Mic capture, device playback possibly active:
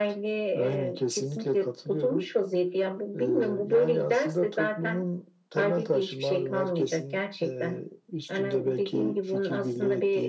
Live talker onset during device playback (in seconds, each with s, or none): none